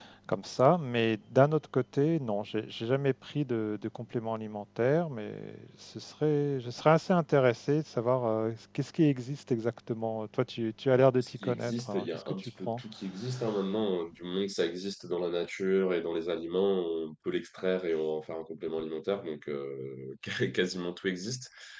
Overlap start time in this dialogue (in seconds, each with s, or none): 10.9 s